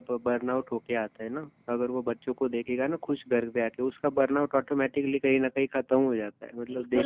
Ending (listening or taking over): taking over